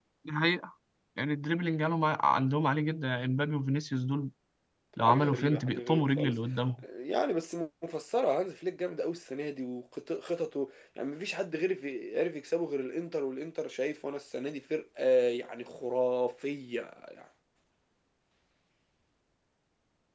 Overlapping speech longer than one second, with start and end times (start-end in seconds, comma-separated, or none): 5.0-6.4